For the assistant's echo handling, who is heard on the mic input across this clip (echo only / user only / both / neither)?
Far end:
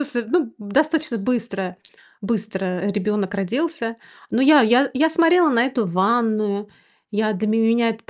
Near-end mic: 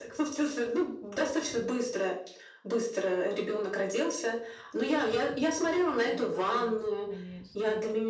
both